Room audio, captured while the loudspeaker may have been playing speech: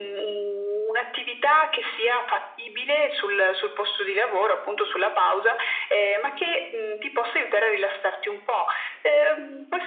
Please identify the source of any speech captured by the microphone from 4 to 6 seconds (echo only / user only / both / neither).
echo only